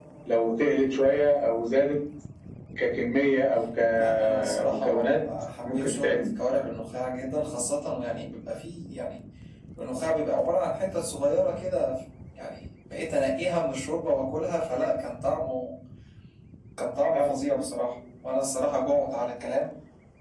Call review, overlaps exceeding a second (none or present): present